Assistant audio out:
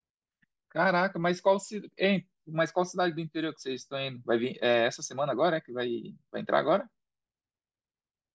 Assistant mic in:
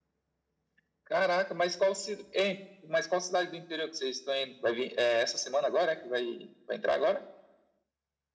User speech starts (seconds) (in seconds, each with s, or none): none